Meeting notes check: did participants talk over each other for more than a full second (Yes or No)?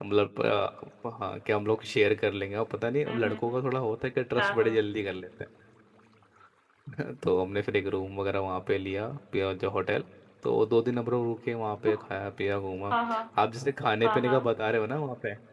No